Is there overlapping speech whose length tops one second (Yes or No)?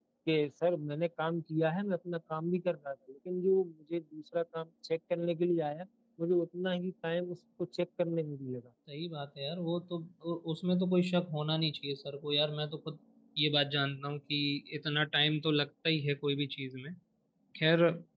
No